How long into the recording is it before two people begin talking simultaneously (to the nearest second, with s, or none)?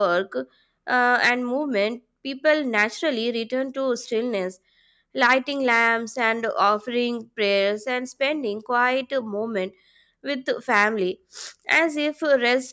none